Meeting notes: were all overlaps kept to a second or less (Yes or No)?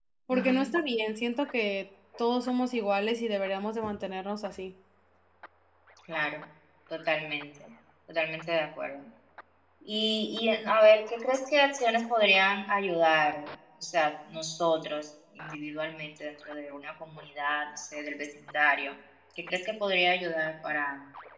Yes